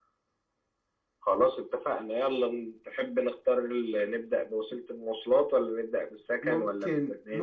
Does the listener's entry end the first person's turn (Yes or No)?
Yes